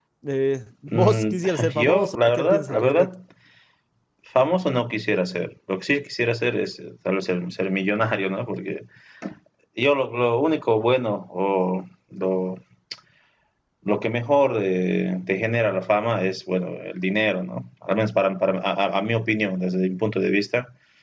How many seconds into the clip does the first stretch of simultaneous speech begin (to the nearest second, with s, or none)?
1 s